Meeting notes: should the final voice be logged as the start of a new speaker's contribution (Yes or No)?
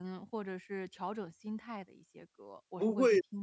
Yes